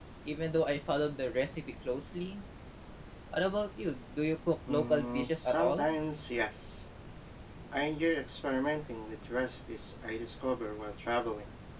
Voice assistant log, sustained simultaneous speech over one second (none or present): present